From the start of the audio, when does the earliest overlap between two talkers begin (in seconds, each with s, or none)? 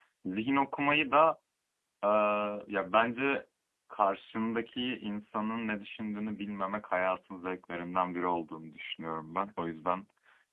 none